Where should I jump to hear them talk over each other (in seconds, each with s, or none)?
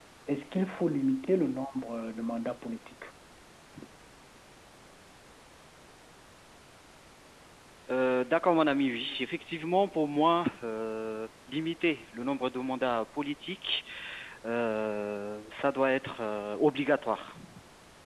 none